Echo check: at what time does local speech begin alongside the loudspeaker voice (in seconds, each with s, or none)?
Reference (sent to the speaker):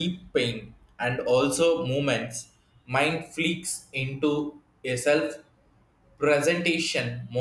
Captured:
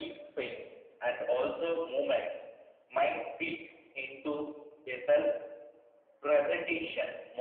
none